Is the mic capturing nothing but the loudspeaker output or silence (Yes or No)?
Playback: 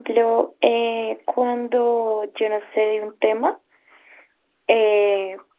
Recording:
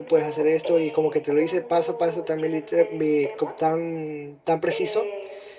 No